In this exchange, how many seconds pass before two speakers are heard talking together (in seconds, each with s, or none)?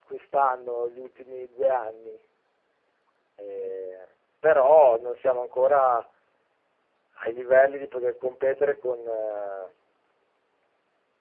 none